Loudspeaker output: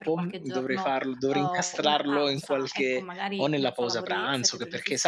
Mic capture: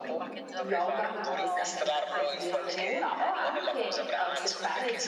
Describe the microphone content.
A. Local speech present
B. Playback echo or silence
A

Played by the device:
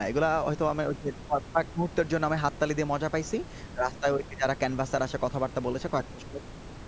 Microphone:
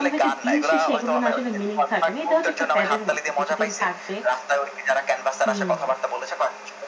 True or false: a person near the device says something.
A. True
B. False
A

